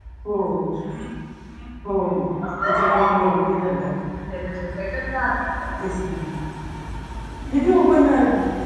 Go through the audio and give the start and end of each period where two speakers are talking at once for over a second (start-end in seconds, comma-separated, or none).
none